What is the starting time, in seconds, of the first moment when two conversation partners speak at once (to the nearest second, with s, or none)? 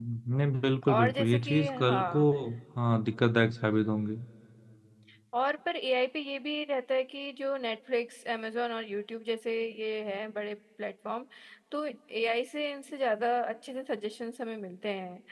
1 s